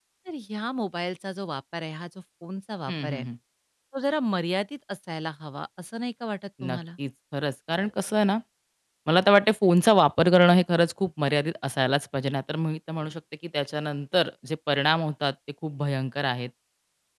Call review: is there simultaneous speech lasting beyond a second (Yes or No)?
No